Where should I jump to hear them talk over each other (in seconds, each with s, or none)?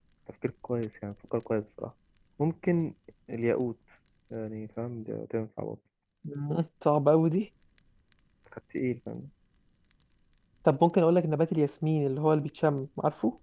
none